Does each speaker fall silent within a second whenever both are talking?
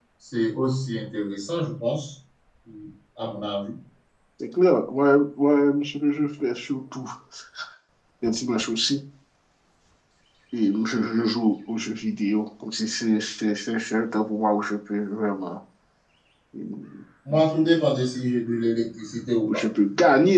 Yes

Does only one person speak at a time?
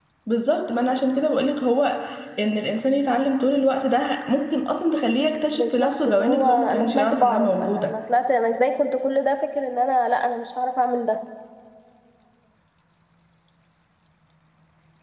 No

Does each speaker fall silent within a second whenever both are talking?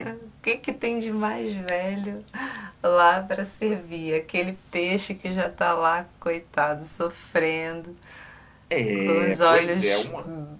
No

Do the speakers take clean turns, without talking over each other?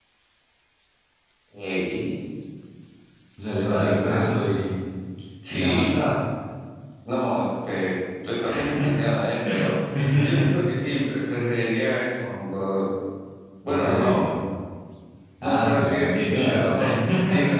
No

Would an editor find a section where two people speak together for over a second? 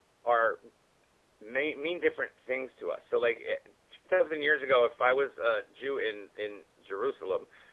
No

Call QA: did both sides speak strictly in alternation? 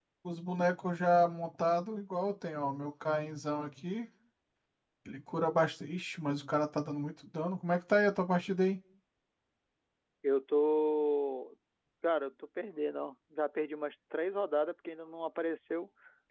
Yes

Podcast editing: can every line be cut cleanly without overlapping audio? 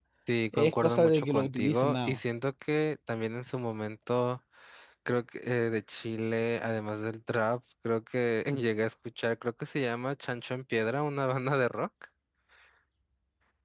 No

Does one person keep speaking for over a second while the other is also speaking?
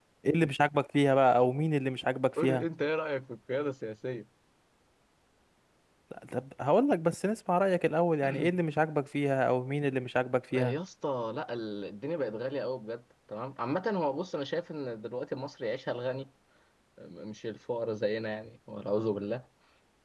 No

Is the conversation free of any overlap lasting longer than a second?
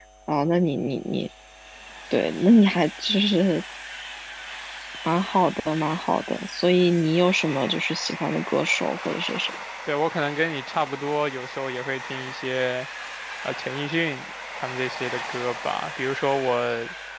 Yes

